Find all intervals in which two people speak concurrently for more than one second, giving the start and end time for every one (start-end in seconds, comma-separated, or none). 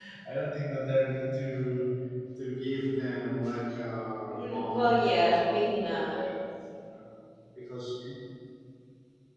4.3-6.2